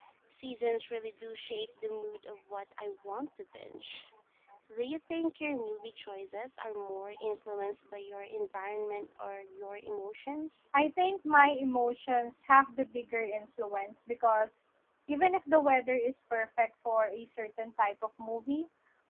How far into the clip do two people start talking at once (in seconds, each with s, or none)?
none